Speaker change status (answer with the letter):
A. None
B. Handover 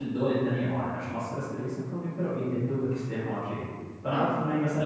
A